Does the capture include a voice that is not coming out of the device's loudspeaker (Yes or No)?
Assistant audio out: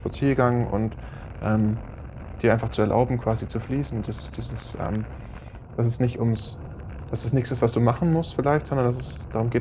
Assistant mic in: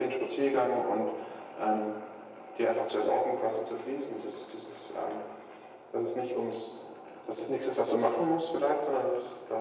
No